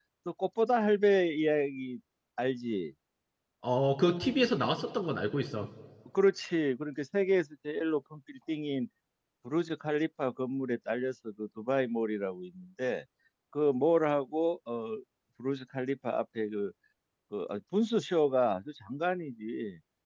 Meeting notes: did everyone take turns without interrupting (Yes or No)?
Yes